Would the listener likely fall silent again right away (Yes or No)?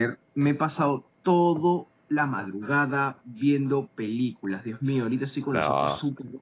Yes